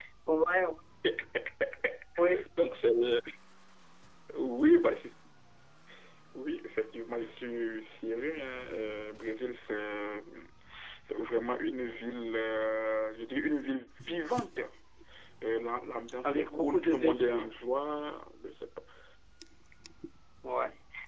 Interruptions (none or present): present